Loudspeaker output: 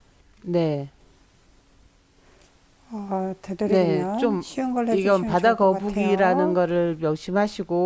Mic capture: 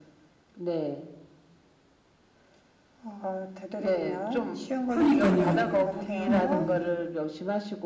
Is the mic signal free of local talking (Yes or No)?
No